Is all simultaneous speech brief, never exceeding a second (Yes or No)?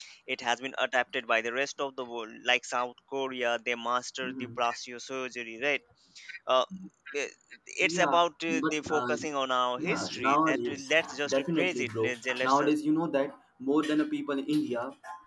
No